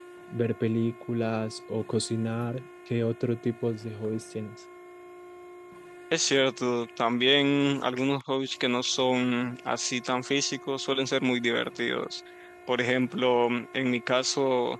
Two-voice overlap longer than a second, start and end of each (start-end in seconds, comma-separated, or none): none